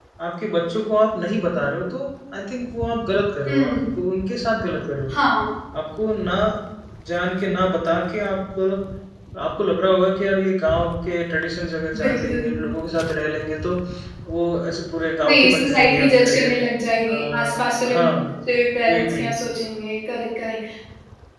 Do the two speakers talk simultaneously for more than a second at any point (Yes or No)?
Yes